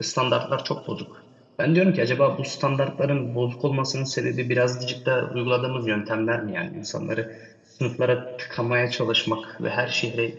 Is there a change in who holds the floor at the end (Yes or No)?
No